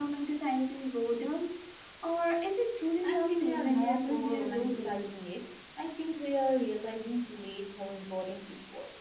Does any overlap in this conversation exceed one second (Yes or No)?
Yes